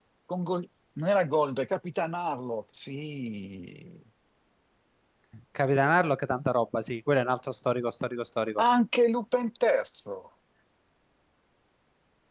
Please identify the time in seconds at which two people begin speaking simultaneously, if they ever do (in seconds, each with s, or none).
none